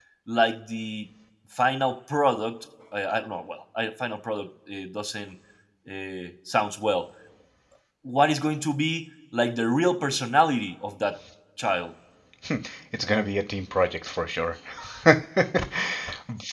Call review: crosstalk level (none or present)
none